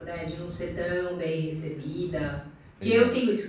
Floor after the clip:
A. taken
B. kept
B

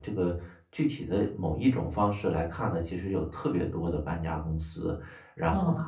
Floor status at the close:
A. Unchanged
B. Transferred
A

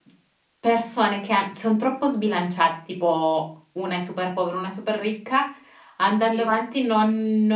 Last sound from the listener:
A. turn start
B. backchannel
B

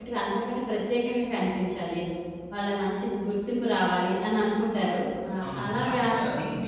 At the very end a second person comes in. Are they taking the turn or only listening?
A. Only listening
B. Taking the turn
B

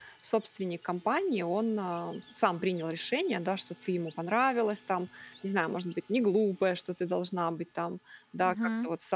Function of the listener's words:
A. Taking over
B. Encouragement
B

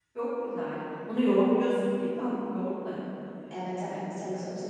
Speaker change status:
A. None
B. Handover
B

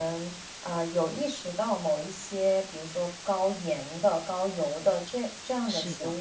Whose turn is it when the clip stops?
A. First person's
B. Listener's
A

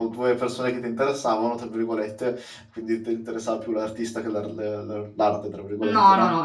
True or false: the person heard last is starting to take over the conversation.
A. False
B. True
B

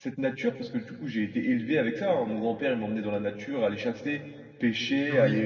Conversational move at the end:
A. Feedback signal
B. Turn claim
A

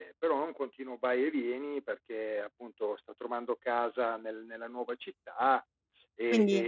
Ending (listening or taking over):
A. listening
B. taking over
A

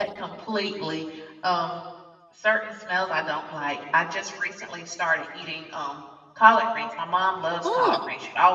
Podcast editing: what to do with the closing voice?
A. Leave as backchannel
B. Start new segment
A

